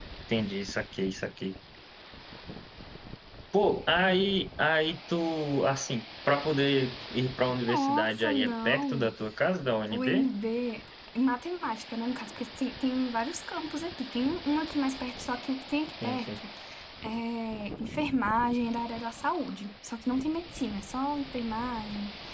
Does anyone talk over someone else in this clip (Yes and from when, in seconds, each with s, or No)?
Yes, from 7.7 s